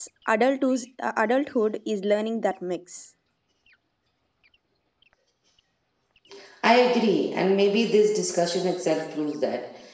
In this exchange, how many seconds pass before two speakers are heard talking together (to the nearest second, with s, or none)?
none